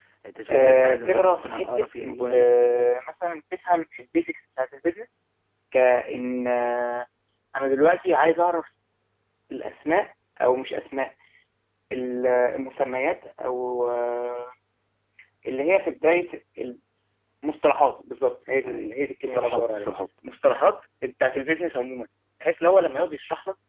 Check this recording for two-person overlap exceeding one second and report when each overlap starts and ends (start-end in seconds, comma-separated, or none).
0.5-2.3, 18.6-19.9